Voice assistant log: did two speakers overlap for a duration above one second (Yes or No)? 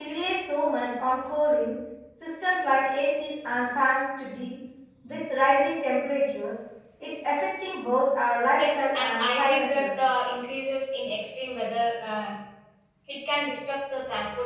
Yes